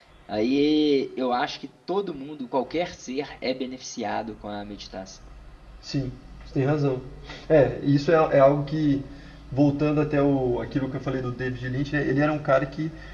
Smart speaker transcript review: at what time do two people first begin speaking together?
none

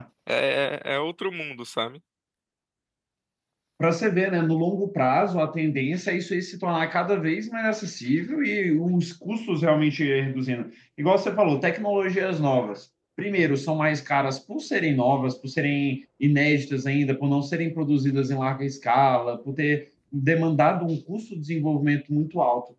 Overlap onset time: none

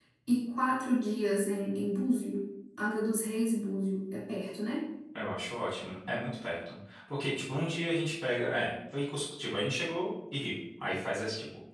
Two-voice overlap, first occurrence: none

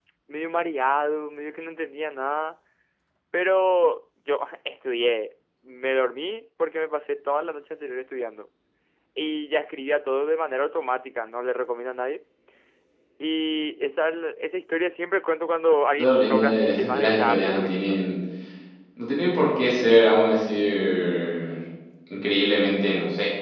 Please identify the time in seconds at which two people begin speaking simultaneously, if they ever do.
16 s

